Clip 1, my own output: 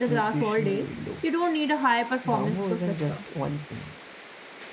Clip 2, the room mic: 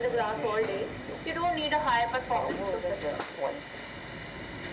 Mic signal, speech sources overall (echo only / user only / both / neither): echo only